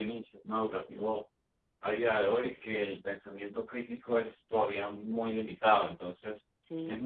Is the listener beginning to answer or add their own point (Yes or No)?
No